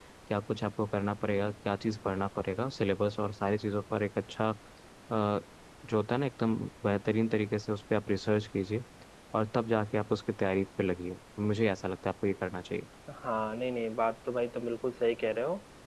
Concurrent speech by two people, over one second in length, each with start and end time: none

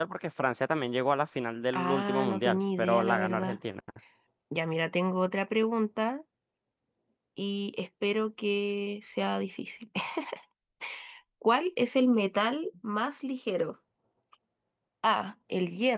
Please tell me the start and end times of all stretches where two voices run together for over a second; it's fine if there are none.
1.7-3.6

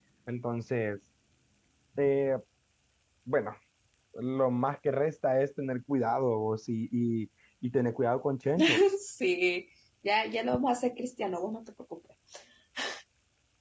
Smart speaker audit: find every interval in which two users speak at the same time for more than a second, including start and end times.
none

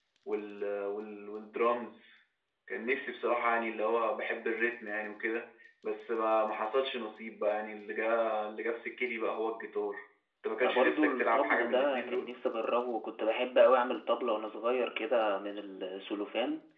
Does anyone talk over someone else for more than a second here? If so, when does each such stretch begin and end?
10.6-12.3

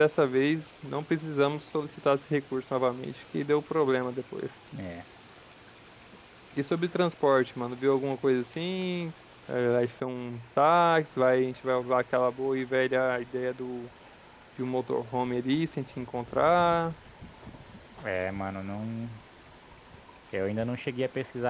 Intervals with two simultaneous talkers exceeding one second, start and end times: none

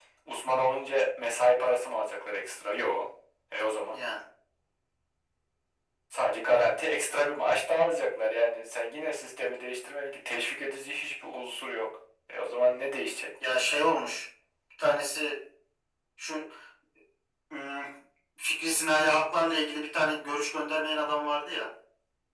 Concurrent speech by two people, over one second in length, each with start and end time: none

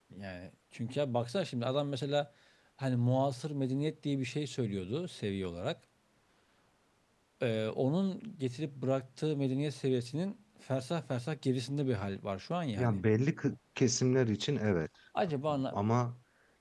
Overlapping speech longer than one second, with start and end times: none

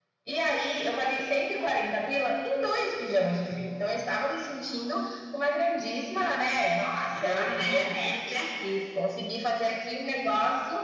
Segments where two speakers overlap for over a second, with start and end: 7.2-8.5

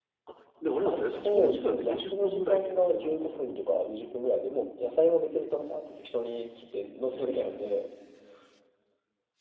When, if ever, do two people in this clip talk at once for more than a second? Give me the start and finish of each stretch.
0.8-3.4

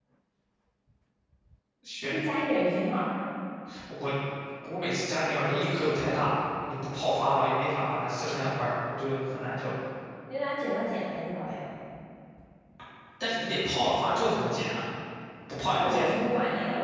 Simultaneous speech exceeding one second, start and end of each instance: none

